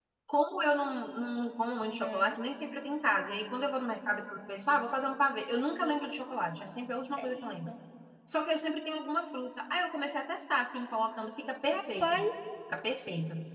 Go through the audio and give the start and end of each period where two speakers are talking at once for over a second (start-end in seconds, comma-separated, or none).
none